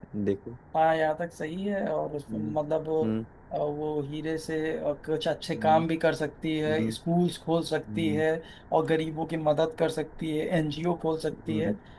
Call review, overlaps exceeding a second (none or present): none